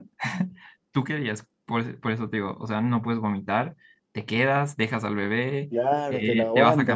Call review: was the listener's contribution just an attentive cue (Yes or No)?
No